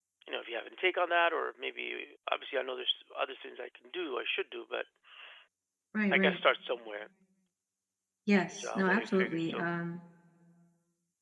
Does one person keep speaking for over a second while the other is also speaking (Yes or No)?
Yes